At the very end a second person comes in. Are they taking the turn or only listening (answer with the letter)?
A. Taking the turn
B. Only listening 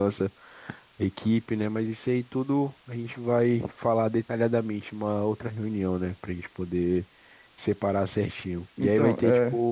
B